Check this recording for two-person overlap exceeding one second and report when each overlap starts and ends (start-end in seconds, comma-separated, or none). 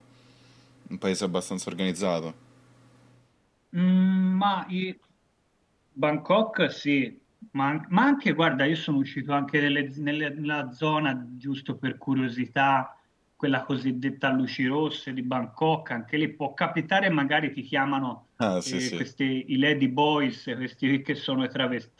none